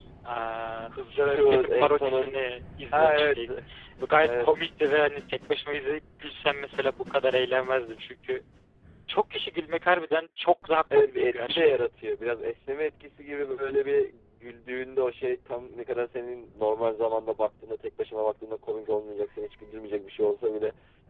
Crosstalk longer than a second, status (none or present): present